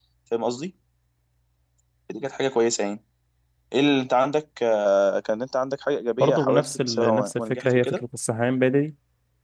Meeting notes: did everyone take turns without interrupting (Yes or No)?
No